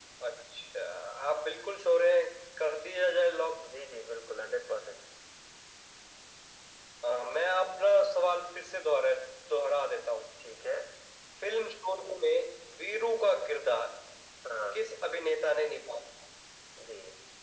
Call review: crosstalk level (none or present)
none